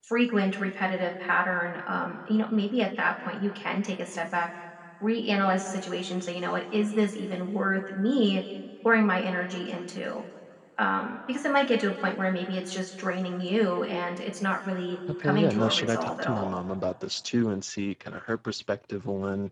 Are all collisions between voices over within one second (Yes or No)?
No